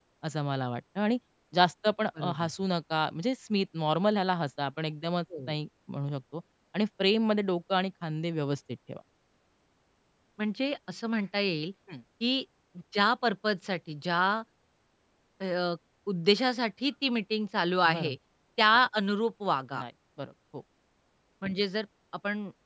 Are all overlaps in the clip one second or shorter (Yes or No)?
Yes